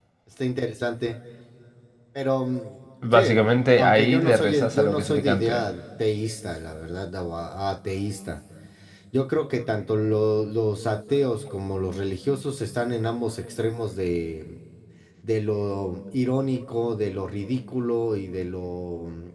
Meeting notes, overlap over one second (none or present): present